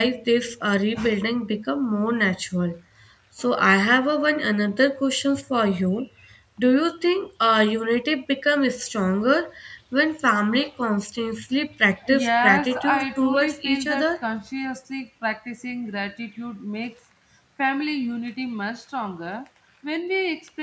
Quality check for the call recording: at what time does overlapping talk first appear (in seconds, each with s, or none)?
12.0 s